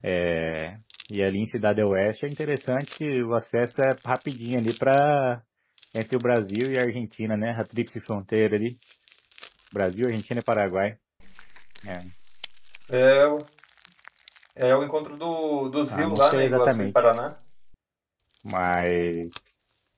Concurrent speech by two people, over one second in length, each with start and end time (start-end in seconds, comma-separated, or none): 15.9-17.1